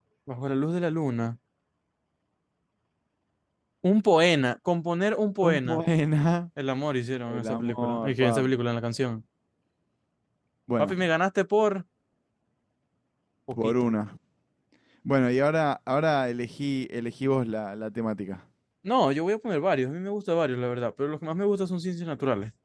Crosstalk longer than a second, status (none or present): present